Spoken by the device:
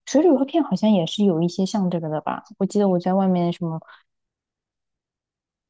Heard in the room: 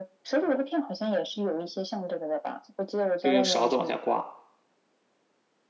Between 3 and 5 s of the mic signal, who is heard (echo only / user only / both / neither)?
both